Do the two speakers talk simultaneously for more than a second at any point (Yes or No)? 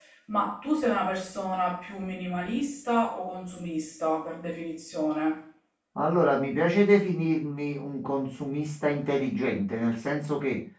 No